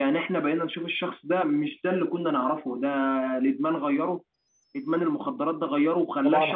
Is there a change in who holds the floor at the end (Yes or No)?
Yes